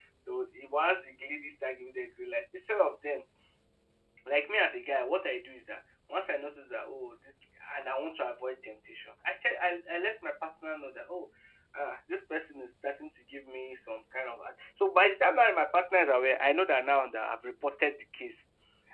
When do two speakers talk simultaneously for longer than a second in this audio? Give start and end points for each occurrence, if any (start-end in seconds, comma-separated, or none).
none